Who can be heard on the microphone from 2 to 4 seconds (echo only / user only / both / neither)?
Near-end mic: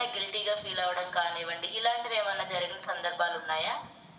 echo only